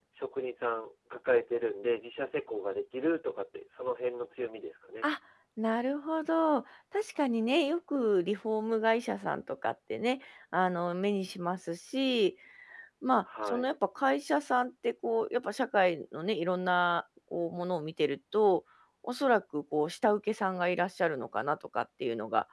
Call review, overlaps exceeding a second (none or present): none